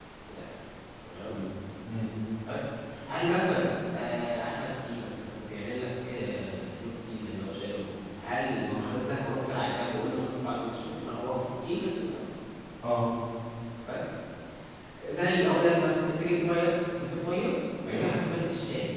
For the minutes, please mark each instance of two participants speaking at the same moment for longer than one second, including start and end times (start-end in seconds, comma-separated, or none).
none